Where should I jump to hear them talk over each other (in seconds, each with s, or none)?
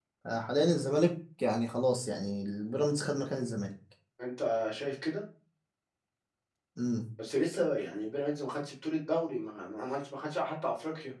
none